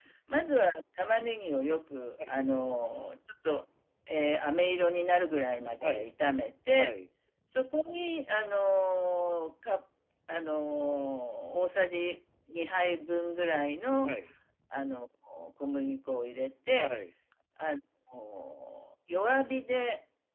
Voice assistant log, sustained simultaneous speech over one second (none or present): none